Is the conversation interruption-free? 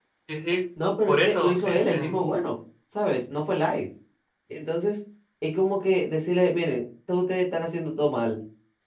No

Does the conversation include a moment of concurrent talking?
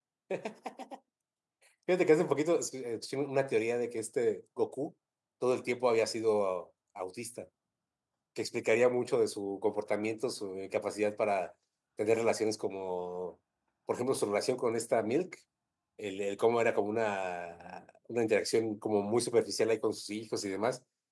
No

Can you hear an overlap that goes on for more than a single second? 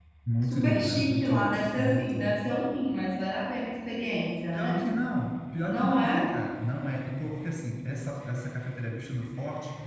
Yes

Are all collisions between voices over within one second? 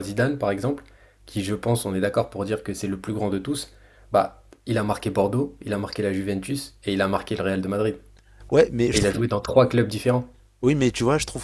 Yes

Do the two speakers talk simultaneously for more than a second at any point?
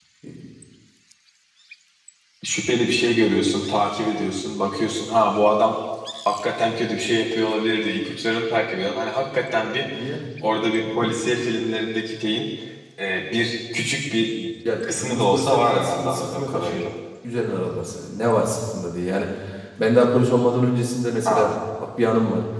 Yes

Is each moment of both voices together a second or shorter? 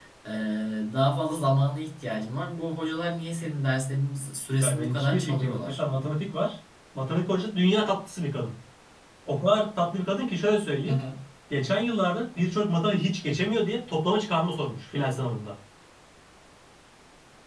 No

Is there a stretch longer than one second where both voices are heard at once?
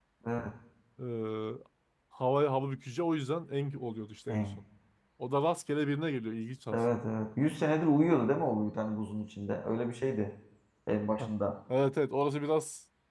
No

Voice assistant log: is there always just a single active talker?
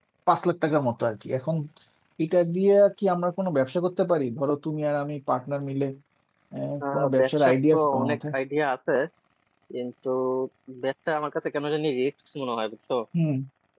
No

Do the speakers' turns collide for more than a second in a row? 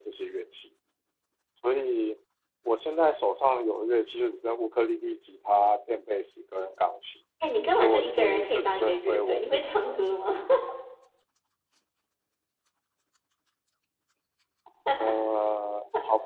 Yes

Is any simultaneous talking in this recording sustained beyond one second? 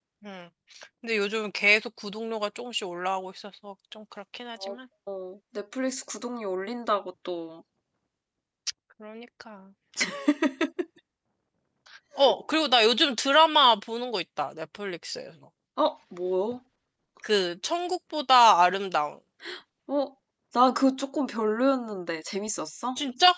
No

